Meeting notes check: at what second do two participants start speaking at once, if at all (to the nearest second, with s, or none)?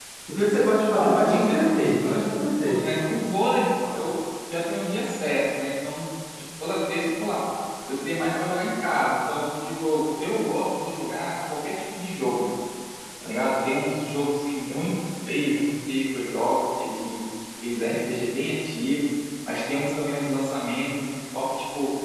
1 s